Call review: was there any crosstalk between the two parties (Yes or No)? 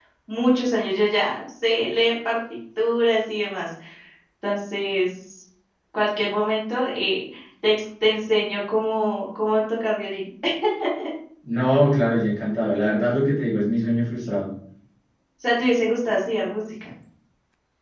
No